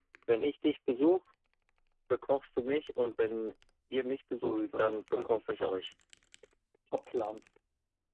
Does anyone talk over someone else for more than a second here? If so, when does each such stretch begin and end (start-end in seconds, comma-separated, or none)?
4.3-5.8